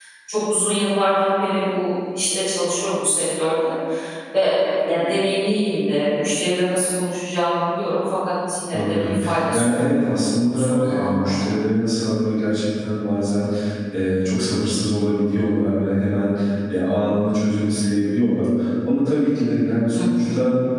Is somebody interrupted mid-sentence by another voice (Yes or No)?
Yes